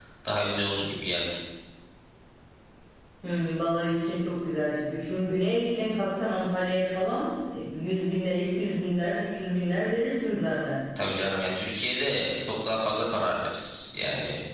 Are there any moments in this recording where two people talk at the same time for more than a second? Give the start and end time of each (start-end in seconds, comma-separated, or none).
none